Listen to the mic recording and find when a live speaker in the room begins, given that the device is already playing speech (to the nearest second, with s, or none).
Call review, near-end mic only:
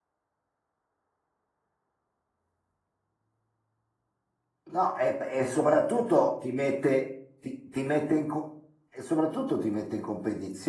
5 s